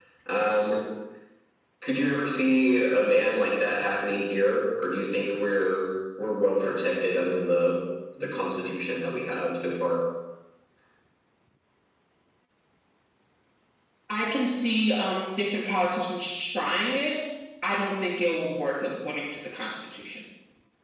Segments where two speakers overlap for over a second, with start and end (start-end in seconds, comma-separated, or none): none